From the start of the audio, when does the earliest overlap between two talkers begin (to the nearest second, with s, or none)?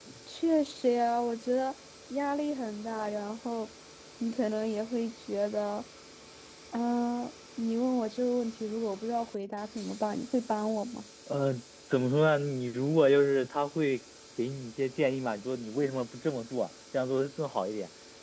none